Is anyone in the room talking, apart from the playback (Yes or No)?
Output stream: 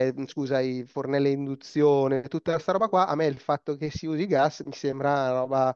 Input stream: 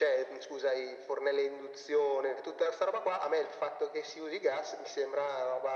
No